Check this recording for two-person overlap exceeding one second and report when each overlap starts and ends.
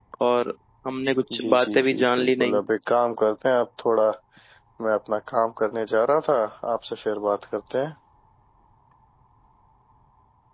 1.4-2.6

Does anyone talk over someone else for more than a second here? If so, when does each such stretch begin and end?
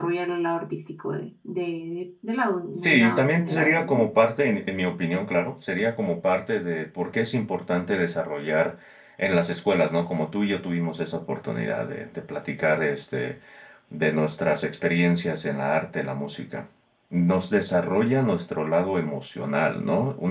2.8-4.0

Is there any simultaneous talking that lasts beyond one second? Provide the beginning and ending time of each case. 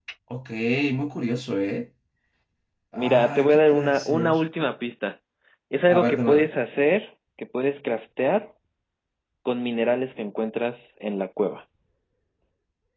3.0-4.4

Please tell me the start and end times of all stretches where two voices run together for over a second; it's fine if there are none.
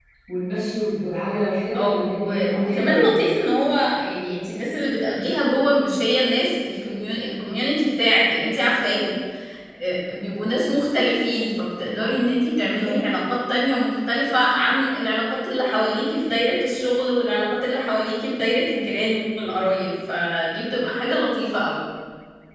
1.7-3.2

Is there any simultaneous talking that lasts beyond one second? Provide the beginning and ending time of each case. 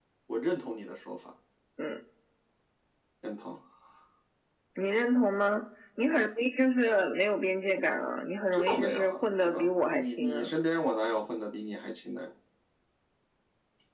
8.5-10.5

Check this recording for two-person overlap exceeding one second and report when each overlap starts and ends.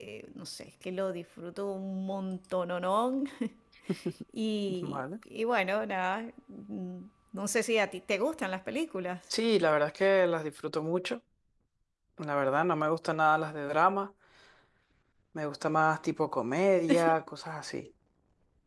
none

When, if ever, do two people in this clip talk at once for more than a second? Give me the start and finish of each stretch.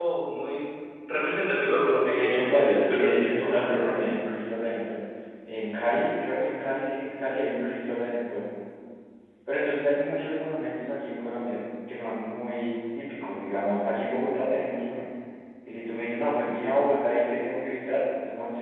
2.1-4.1

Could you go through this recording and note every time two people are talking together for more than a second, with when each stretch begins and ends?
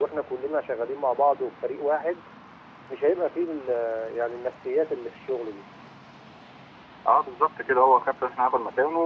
none

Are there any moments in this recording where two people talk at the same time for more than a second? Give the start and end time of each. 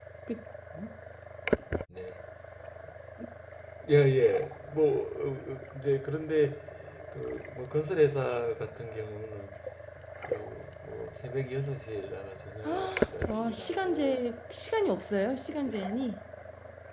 12.6-14.2

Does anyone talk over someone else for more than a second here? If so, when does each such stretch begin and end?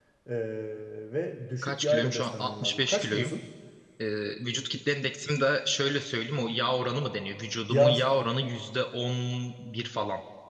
1.6-3.3

